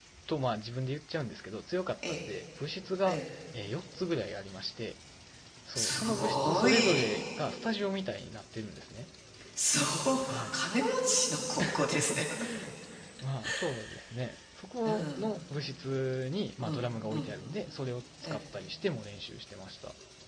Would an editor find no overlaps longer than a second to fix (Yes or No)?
No